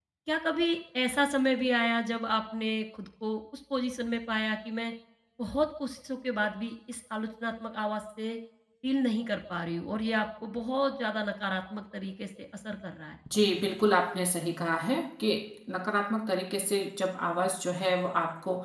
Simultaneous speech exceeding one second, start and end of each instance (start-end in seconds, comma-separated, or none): none